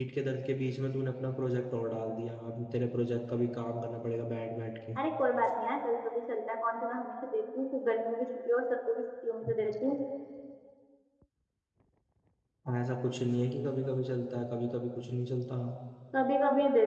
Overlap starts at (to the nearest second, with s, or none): none